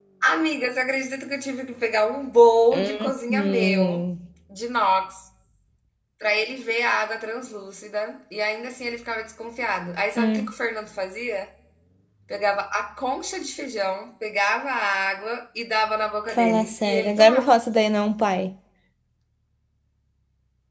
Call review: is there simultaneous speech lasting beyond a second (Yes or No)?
Yes